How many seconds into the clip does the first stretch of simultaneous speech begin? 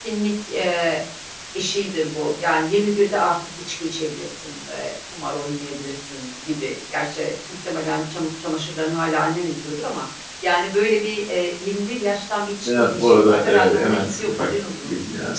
12.6 s

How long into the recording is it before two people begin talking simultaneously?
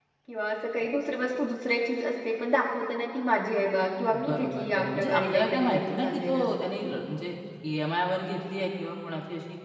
4.1 s

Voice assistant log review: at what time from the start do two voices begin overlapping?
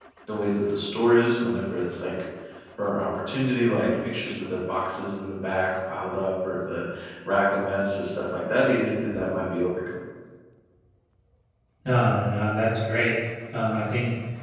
none

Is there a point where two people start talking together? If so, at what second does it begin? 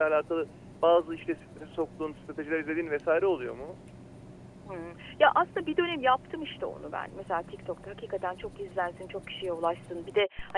none

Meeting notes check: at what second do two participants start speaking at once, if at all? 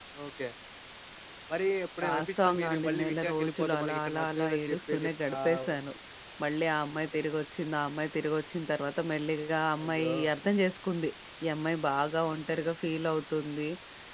2.1 s

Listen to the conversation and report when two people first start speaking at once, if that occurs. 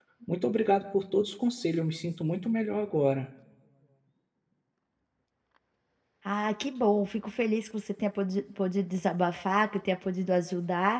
none

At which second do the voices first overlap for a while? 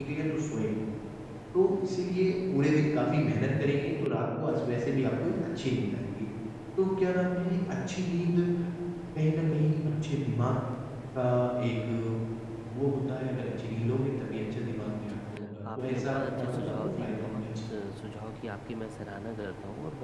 15.7 s

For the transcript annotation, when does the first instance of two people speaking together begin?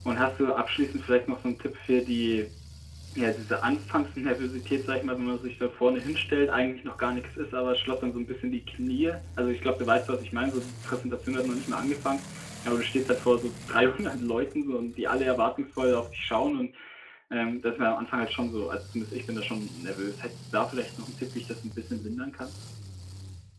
none

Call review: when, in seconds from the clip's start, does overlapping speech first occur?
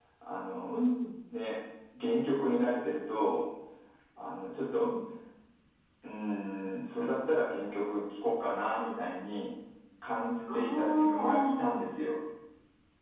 10.5 s

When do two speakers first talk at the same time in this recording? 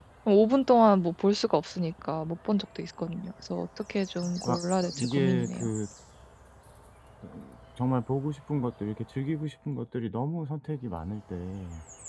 4.2 s

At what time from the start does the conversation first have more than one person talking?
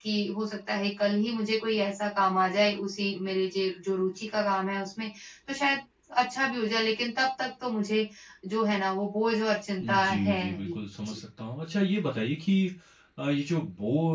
9.8 s

